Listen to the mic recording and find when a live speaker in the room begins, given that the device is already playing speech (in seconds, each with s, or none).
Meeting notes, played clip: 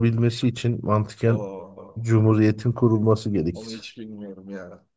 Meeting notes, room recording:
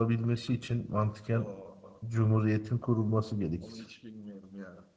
none